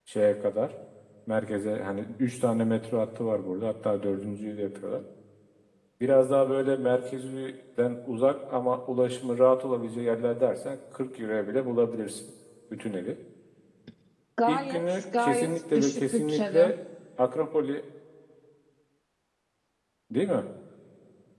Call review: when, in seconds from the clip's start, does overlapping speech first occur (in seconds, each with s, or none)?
14.5 s